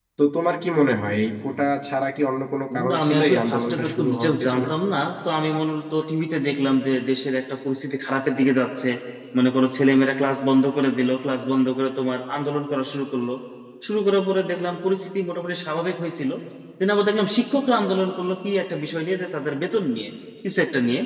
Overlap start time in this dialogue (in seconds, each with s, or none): 2.7 s